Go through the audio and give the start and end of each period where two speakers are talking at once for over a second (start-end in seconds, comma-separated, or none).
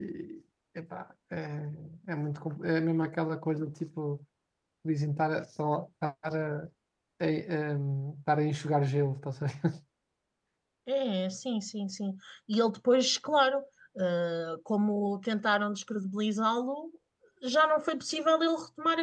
none